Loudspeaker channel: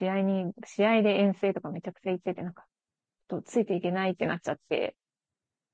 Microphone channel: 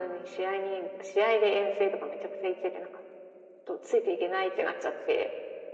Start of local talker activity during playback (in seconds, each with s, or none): none